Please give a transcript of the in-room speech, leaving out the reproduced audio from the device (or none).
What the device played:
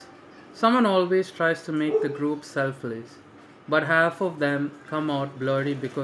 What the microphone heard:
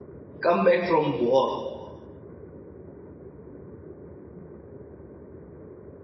come back from war